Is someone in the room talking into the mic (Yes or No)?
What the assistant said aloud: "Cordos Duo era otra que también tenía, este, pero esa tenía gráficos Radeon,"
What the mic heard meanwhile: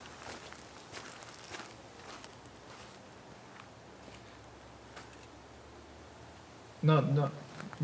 Yes